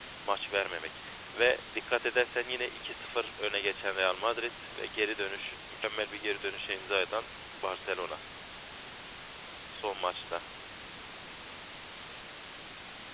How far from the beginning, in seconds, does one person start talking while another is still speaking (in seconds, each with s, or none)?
none